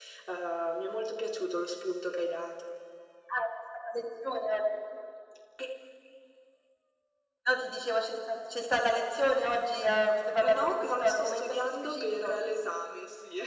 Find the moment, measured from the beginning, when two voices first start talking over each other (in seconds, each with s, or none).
10.4 s